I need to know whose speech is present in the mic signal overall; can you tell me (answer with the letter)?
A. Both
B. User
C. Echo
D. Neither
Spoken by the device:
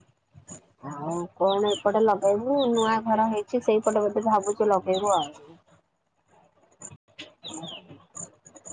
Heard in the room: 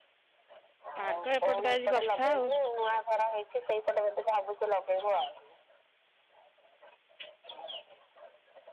A